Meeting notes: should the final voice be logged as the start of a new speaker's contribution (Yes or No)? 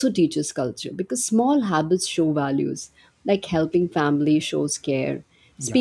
No